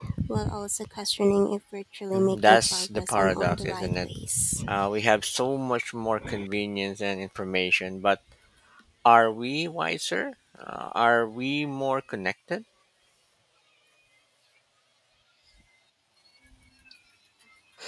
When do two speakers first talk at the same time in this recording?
2.1 s

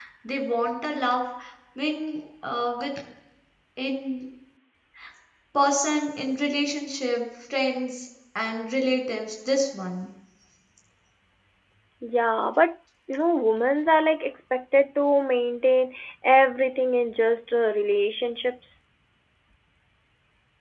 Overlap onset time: none

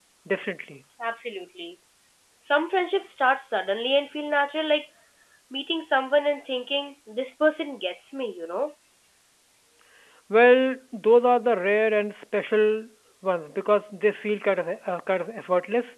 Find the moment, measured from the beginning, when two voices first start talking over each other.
none

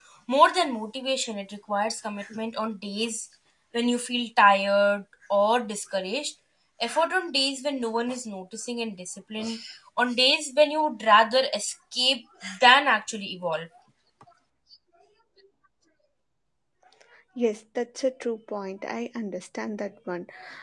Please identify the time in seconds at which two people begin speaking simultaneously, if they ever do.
none

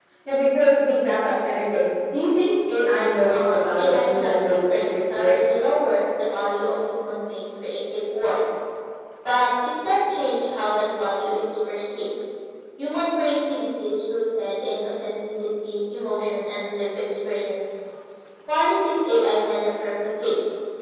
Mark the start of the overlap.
3.3 s

